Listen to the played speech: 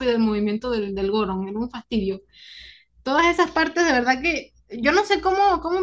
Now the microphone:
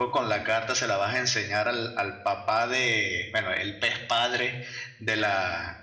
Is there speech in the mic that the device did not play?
Yes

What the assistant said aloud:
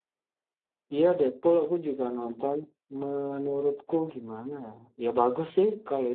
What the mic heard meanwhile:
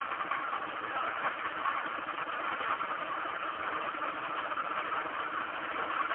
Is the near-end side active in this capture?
No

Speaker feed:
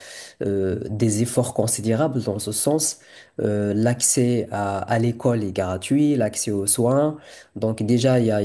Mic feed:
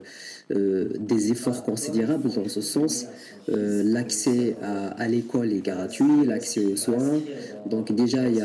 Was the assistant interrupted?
Yes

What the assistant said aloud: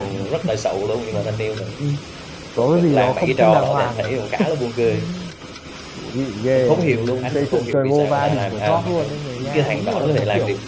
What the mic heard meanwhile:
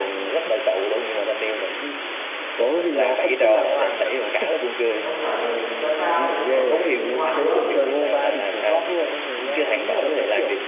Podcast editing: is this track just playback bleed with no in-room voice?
No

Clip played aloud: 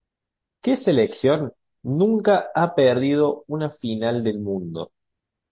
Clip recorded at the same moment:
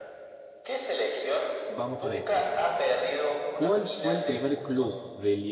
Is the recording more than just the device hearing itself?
Yes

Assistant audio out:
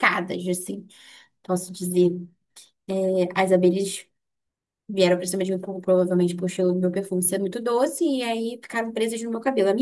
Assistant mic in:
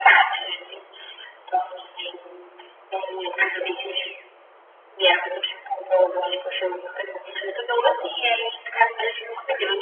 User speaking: No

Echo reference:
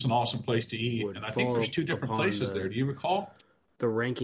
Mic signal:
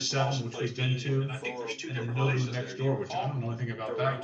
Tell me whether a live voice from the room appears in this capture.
Yes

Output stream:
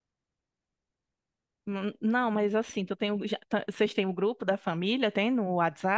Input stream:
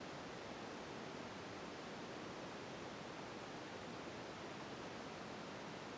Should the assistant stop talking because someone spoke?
No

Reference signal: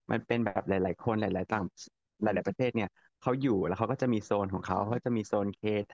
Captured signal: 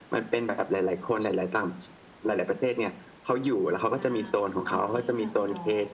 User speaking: Yes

